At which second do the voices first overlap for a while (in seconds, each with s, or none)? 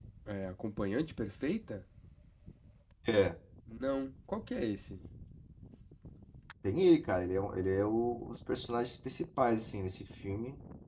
none